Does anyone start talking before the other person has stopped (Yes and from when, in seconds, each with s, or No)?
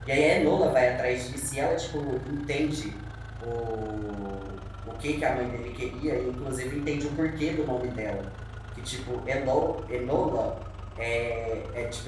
No